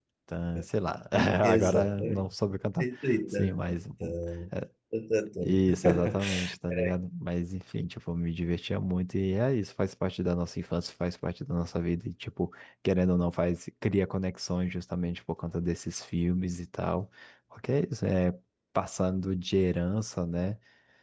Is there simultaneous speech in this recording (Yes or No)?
Yes